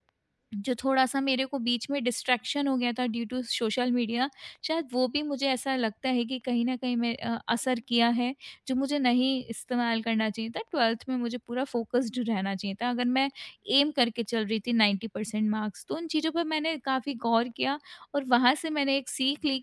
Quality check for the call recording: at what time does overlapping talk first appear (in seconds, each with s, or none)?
none